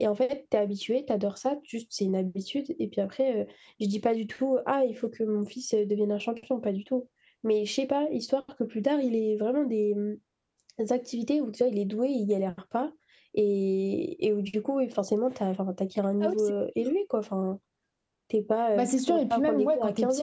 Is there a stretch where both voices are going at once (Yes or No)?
Yes